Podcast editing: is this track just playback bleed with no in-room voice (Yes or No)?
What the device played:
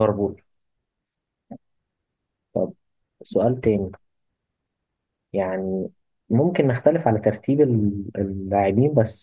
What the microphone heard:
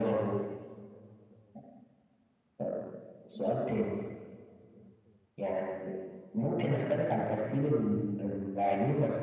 Yes